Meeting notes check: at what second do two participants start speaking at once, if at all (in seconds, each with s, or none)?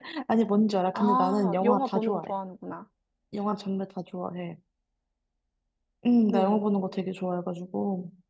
0.9 s